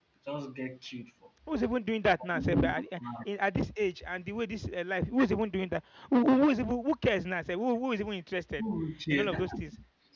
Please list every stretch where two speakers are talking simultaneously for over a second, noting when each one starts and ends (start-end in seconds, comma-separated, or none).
none